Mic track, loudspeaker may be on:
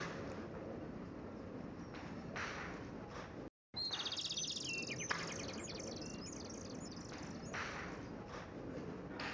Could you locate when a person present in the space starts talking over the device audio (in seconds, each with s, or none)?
none